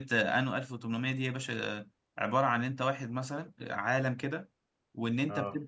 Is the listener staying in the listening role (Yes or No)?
Yes